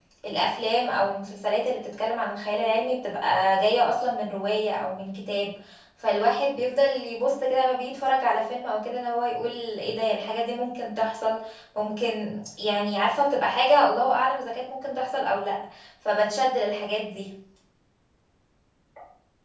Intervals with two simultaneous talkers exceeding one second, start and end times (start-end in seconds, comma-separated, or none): none